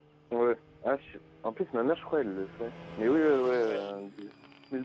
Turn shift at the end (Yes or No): No